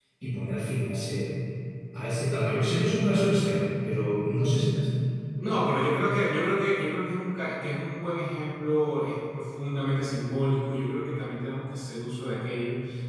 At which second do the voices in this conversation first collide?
none

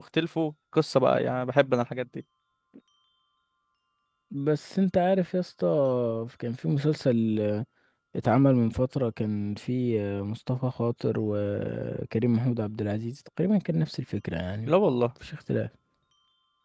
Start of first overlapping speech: none

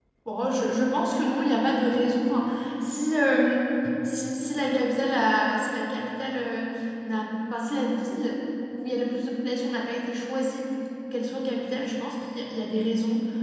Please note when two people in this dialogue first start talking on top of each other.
none

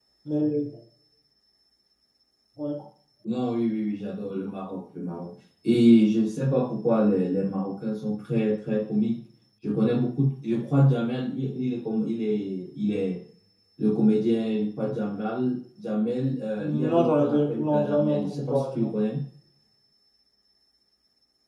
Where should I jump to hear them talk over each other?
16.9 s

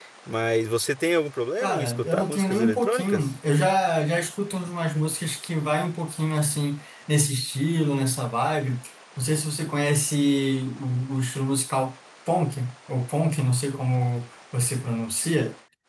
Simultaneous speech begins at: 1.6 s

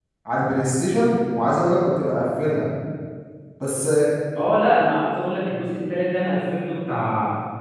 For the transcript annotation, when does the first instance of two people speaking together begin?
none

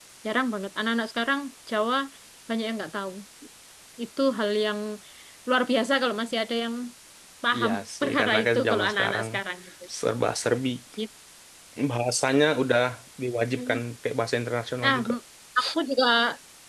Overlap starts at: 7.6 s

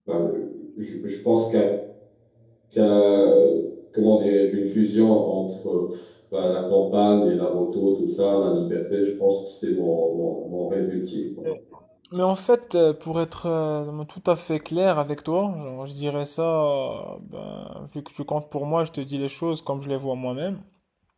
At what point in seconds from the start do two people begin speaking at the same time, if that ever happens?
none

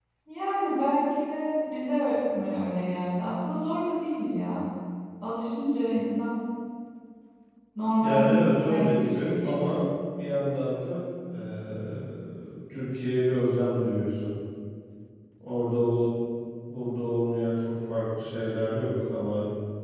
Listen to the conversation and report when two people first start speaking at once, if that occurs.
8.0 s

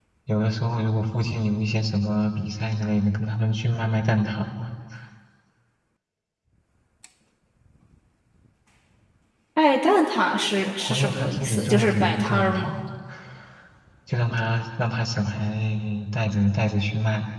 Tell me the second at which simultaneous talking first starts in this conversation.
10.6 s

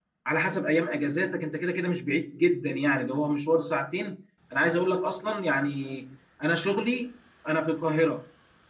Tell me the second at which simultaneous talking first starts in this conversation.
none

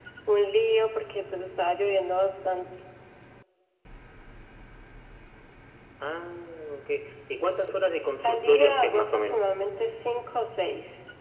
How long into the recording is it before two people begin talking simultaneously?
8.2 s

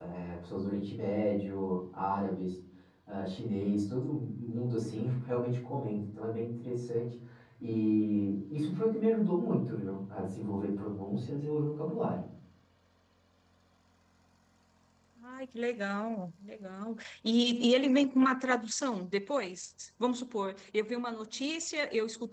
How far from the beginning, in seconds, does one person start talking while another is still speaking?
none

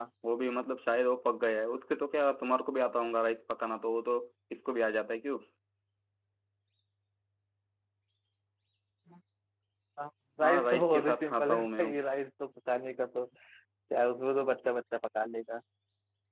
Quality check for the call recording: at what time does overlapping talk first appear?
10.4 s

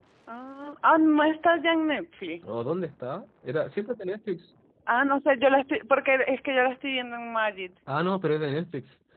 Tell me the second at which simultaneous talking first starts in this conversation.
none

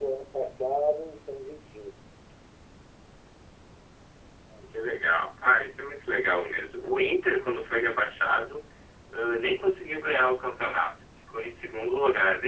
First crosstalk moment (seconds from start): none

